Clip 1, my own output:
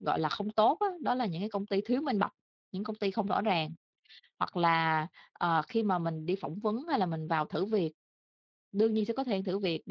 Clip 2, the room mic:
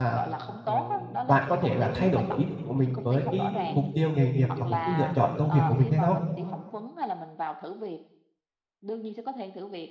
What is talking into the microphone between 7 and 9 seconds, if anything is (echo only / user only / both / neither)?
echo only